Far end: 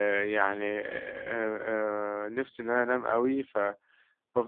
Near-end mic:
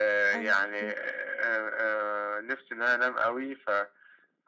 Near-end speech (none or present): present